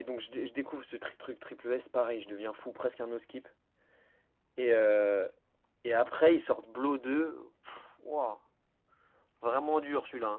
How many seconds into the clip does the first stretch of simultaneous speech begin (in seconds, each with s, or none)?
none